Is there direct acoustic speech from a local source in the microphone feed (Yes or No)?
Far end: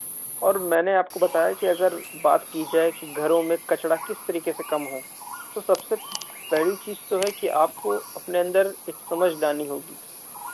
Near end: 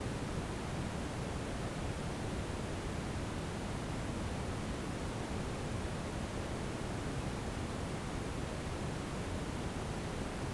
No